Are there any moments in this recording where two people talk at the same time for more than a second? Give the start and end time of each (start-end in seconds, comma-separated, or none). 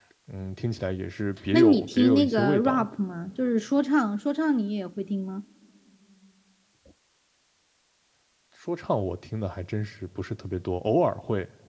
1.5-2.9